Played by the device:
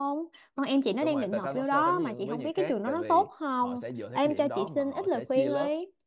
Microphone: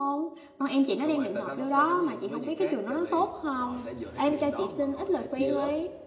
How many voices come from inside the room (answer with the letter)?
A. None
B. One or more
A